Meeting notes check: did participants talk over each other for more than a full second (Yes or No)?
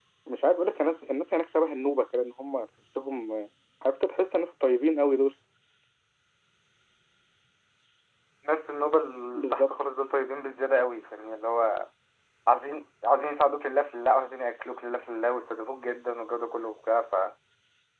No